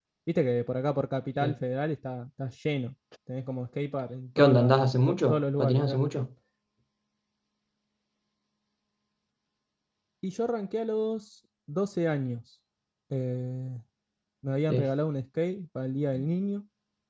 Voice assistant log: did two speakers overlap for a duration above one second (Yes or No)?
Yes